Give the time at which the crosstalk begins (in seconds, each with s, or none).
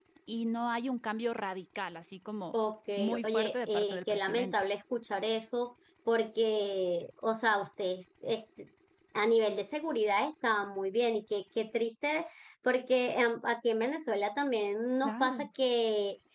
3.2 s